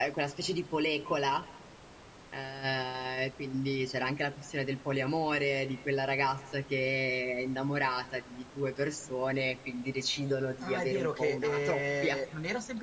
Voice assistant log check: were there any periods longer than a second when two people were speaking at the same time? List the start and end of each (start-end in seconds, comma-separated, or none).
10.6-12.2